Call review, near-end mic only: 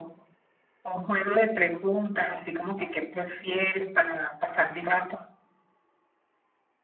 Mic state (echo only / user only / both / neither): echo only